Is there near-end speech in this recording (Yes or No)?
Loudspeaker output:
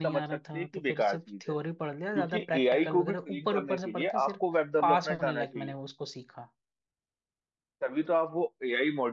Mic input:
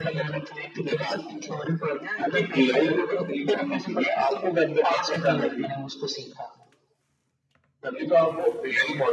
No